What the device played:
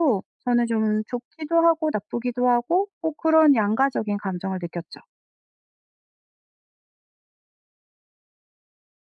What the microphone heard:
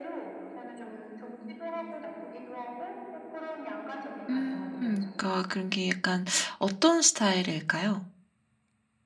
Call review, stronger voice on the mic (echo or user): user